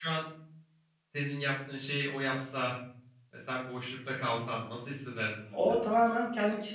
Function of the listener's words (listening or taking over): taking over